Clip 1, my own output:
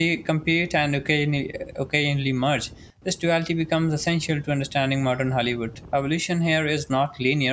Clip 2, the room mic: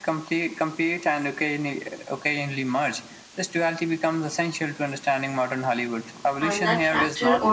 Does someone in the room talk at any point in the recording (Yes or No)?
Yes